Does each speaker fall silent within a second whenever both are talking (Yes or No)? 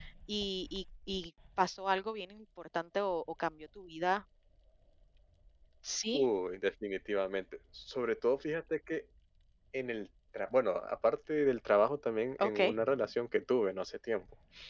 Yes